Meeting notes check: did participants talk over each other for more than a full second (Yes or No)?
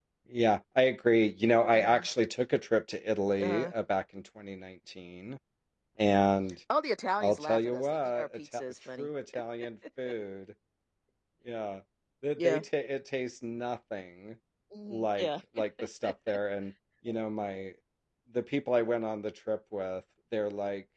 Yes